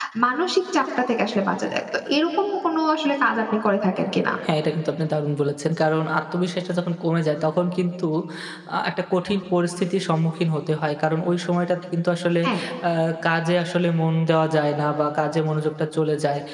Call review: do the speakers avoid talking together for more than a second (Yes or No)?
Yes